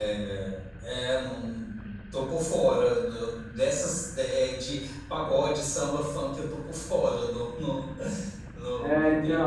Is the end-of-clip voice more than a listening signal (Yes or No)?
Yes